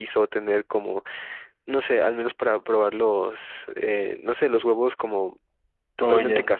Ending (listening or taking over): listening